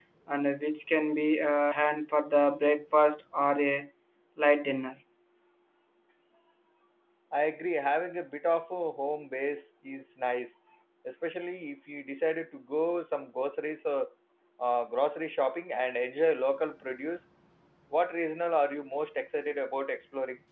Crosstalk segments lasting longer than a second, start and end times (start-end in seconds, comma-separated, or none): none